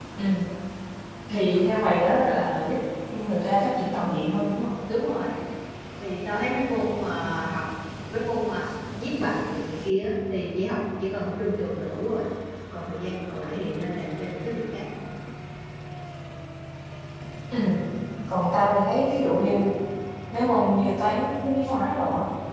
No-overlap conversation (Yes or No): Yes